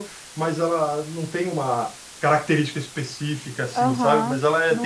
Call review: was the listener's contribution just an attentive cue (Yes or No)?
No